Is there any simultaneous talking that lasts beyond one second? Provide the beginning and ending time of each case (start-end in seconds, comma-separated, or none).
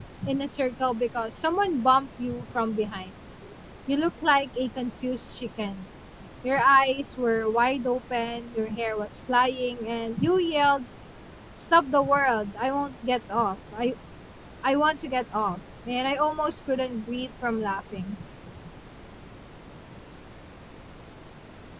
none